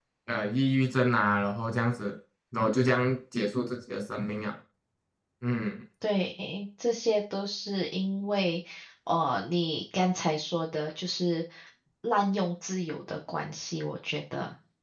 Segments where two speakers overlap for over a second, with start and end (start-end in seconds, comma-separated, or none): none